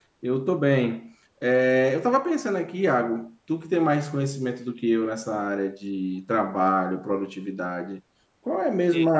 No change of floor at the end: Yes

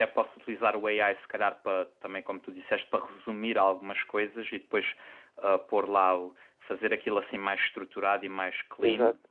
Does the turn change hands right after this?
No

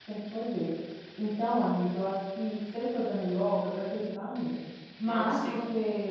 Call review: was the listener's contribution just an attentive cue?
Yes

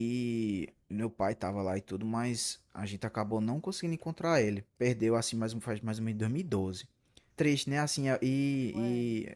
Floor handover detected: No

